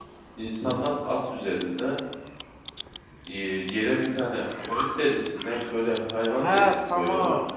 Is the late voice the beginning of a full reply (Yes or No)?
Yes